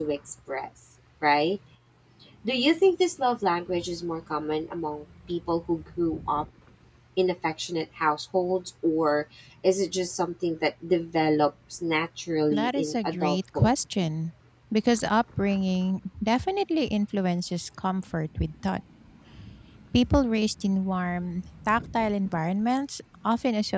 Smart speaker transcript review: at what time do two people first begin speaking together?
12.5 s

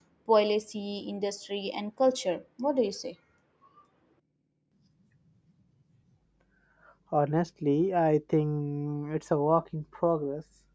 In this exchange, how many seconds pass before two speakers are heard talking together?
none

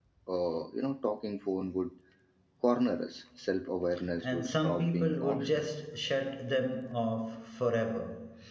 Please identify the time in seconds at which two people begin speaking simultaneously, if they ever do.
4.2 s

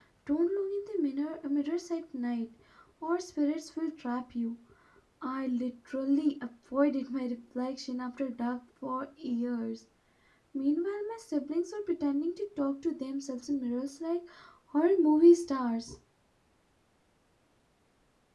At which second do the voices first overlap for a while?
none

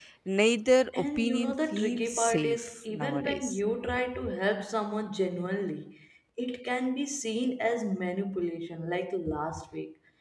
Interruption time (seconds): 0.9 s

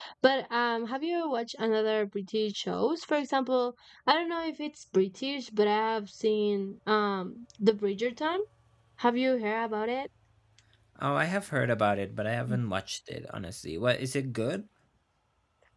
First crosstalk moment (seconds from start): none

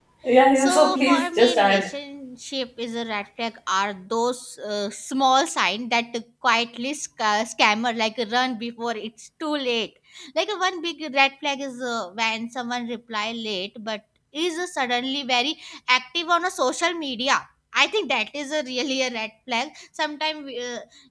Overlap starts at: 0.6 s

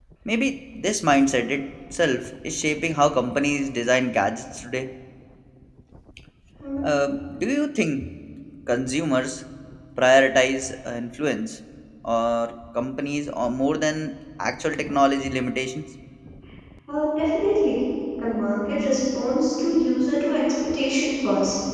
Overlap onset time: none

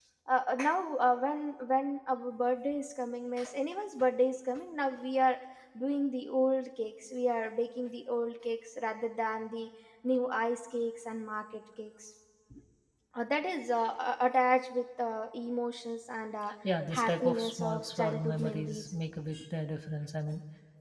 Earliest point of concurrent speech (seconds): 16.9 s

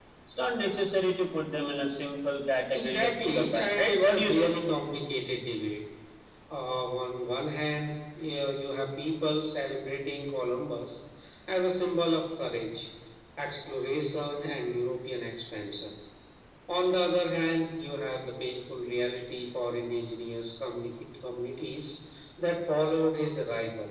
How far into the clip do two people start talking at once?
2.7 s

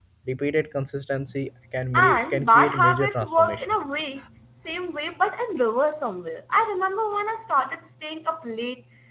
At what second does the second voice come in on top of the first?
1.9 s

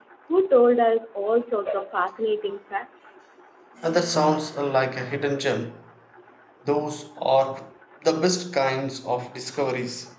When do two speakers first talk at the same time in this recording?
none

